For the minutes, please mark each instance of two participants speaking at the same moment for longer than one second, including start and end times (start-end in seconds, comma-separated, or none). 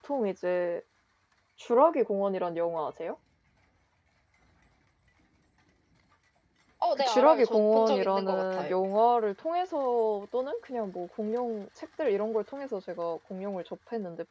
7.0-8.7